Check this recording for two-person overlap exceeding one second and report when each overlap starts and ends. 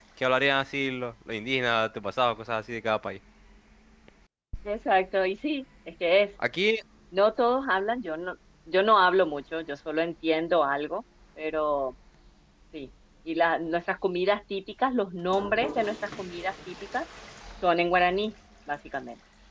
none

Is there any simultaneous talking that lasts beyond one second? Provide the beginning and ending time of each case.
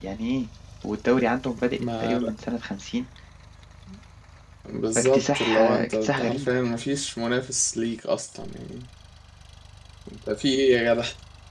5.0-6.5

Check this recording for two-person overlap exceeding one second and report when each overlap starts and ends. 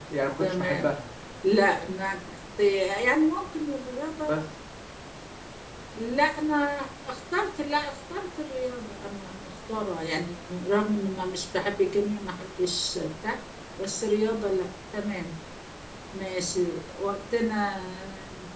none

